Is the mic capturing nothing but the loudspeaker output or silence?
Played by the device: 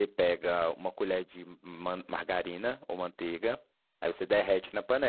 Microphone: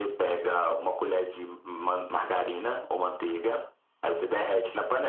Yes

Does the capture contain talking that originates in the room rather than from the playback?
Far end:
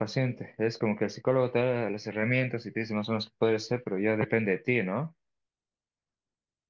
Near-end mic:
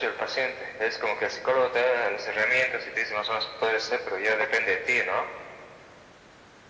No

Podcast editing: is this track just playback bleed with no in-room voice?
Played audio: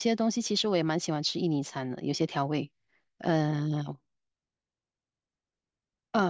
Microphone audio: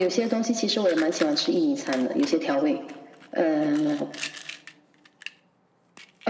Yes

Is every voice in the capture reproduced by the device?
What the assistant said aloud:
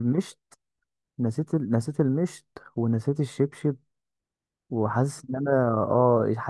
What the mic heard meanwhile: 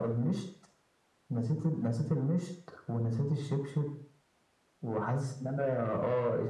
Yes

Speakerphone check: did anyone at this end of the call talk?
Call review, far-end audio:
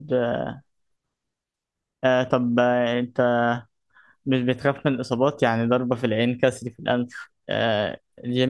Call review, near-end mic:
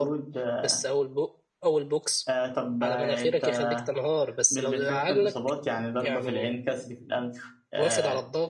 Yes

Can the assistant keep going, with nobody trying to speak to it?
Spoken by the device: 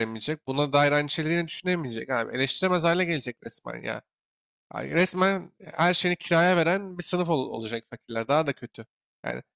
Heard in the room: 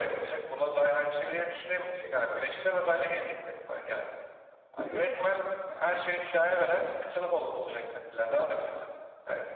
No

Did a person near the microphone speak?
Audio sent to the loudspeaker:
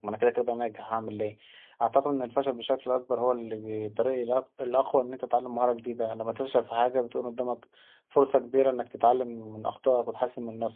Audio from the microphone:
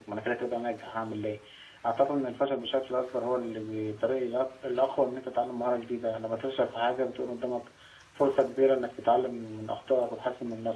No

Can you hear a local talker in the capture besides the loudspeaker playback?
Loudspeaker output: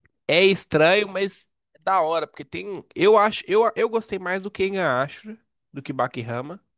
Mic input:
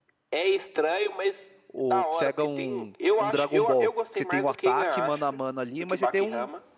Yes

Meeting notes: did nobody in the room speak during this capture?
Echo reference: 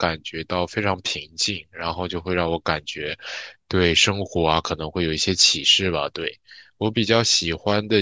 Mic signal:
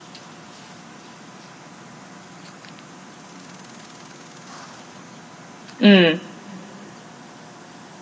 No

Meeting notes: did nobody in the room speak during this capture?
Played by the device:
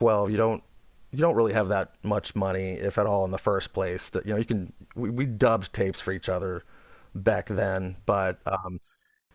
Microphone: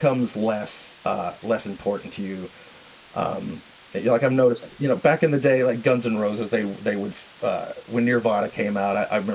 No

